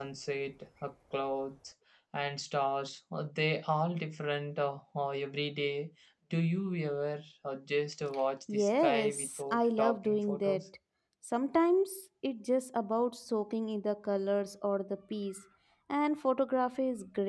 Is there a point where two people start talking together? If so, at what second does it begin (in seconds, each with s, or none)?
8.5 s